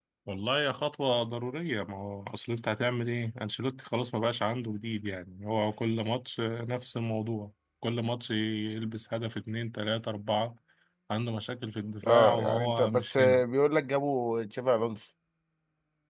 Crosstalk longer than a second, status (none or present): present